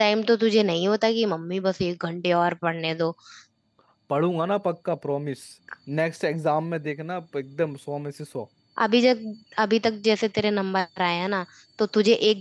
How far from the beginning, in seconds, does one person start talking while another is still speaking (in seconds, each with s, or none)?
none